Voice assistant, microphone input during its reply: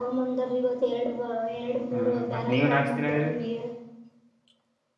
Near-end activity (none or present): present